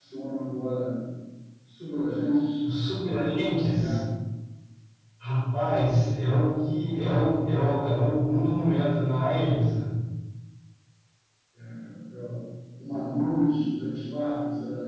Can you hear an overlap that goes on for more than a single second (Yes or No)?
No